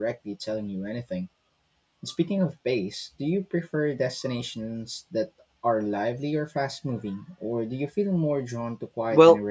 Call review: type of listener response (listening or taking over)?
taking over